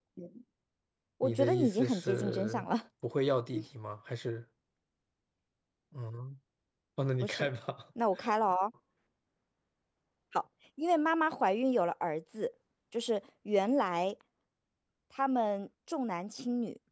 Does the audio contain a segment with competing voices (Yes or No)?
Yes